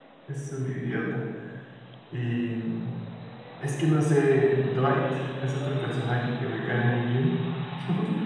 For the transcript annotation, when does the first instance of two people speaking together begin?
none

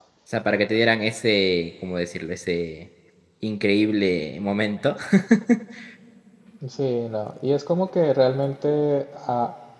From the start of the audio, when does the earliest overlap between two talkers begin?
none

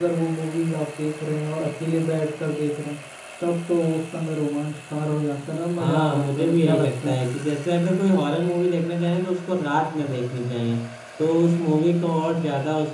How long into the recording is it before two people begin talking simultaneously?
6 s

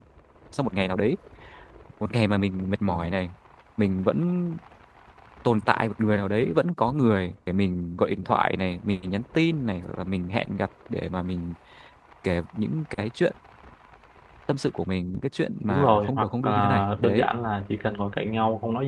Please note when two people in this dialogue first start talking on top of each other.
16 s

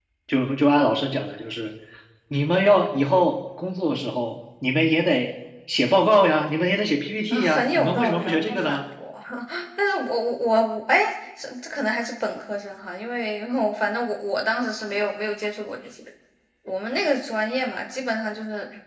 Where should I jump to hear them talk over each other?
7 s

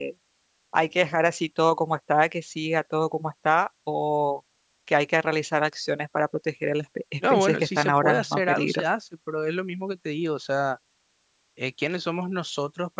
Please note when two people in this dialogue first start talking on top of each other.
7 s

